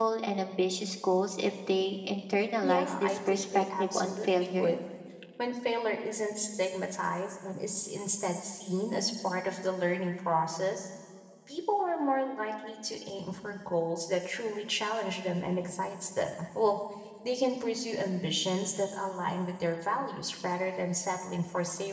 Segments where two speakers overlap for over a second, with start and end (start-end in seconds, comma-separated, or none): 2.6-4.7